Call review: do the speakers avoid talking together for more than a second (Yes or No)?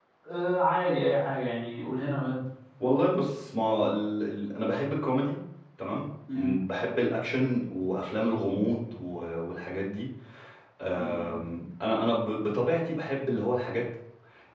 Yes